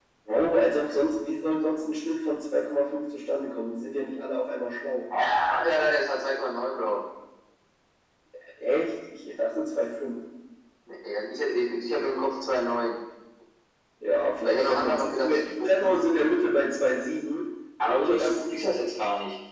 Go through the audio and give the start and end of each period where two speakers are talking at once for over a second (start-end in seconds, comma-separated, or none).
14.4-15.9